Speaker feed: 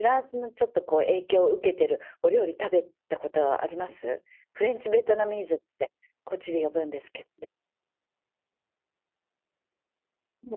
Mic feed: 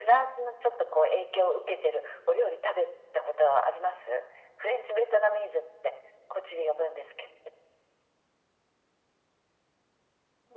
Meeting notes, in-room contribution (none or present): none